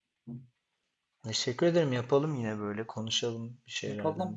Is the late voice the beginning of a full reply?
Yes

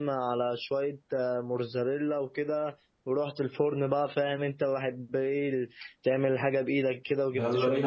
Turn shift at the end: Yes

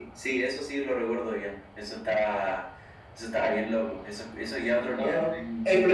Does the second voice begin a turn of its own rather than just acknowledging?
Yes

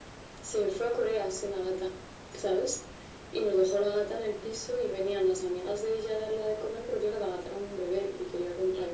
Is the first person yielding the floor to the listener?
No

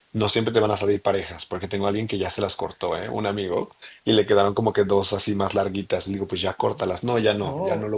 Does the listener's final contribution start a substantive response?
Yes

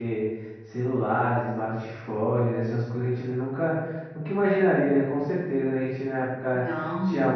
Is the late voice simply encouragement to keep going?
Yes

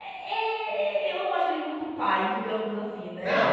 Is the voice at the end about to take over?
Yes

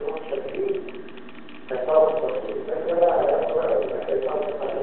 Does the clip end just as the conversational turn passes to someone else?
Yes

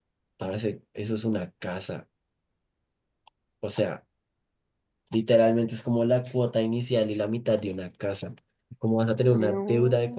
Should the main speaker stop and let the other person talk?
No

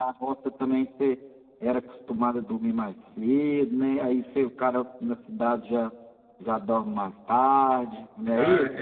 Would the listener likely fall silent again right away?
No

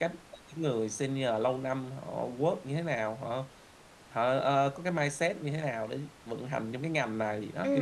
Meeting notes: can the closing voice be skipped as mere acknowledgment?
No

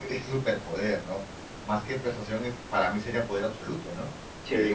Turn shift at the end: No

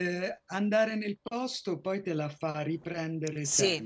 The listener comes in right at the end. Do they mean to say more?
Yes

